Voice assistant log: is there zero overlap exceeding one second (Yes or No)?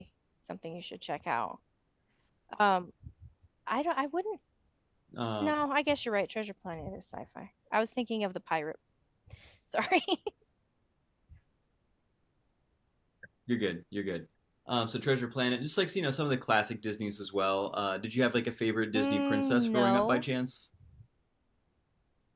No